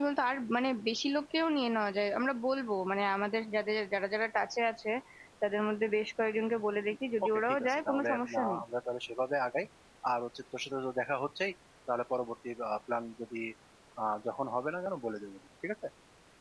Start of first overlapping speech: 7.3 s

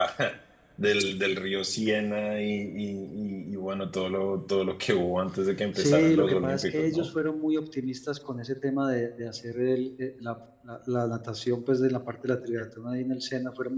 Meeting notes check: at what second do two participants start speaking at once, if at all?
5.8 s

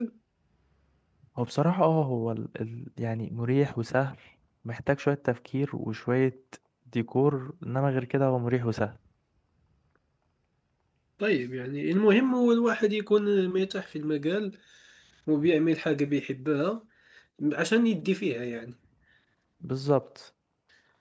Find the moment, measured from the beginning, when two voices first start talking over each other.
none

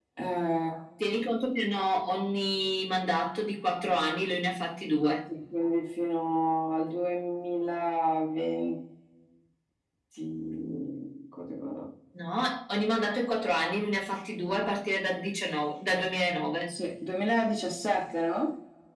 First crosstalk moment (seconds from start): none

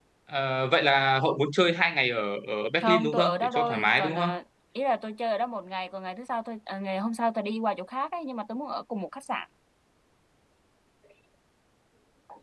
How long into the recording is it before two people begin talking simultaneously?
2.8 s

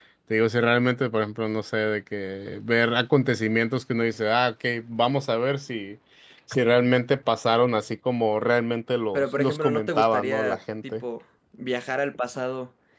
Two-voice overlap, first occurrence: 9.1 s

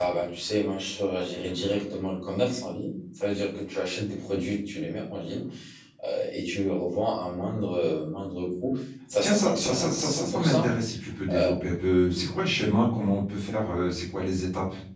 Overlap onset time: 9.2 s

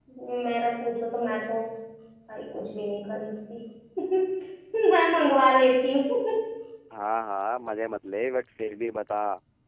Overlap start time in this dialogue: none

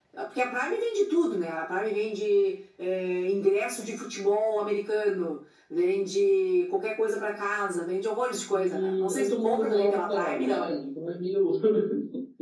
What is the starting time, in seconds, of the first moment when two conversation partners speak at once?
8.5 s

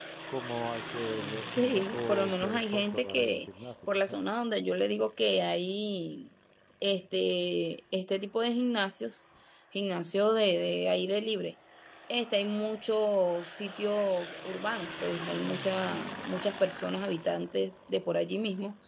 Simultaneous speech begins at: 1.6 s

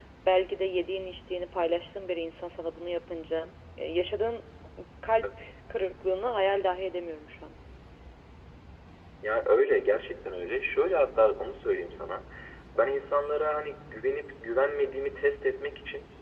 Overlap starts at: none

